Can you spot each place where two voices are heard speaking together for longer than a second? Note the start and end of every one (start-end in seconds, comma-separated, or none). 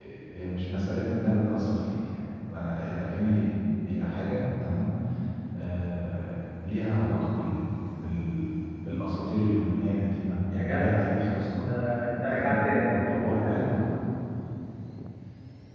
12.3-13.7